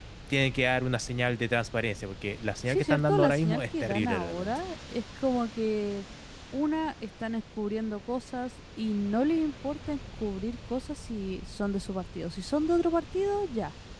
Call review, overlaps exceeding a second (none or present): present